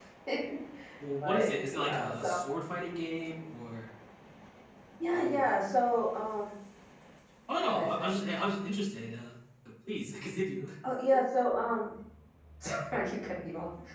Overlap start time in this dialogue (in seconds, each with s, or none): 1.2 s